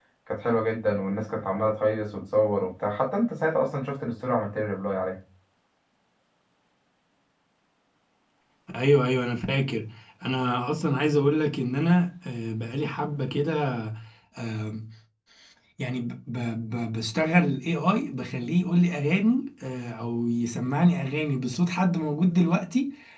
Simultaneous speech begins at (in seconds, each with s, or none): none